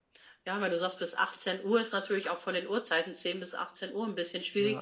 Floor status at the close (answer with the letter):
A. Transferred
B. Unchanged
B